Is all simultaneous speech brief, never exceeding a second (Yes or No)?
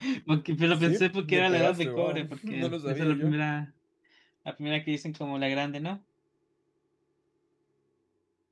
No